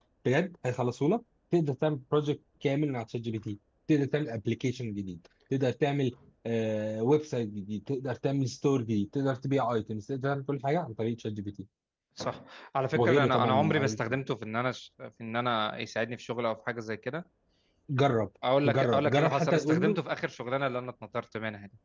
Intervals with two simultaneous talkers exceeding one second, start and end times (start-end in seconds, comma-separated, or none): 12.9-14.2, 18.6-20.0